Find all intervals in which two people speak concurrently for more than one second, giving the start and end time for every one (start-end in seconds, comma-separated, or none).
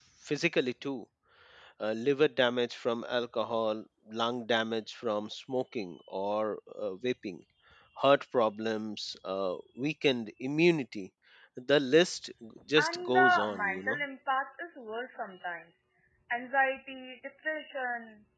12.8-14.0